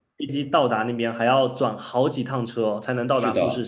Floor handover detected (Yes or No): Yes